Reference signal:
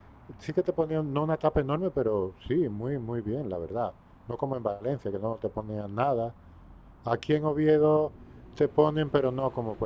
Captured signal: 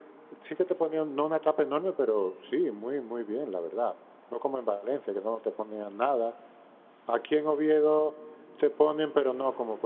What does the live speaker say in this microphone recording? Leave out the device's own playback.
none

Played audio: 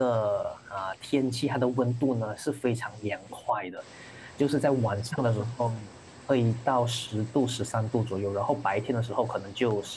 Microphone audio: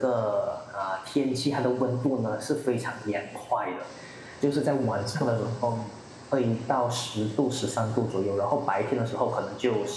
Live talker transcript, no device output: none

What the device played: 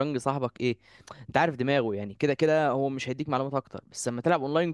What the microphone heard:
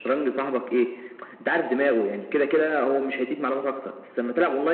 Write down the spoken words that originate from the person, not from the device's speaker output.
none

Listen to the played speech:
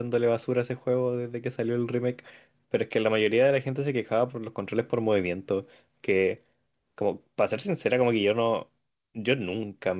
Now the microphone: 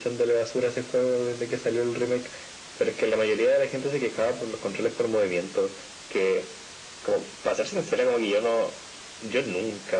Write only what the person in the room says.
none

